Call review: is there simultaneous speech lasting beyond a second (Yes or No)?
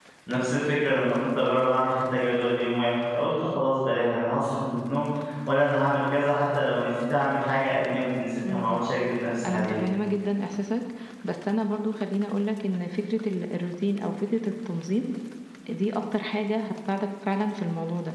No